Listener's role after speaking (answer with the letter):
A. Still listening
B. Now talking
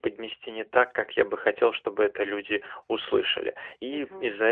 A